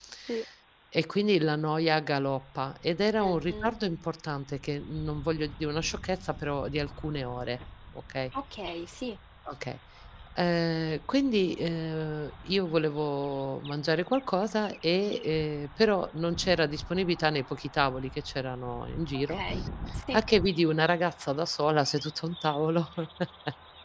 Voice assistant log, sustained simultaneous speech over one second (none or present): none